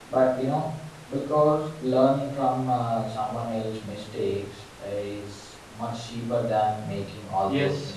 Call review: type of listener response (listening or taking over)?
taking over